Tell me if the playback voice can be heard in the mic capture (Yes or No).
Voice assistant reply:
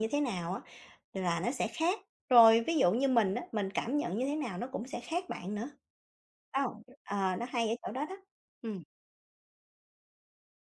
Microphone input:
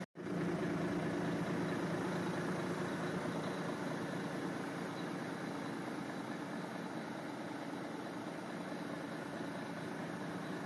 No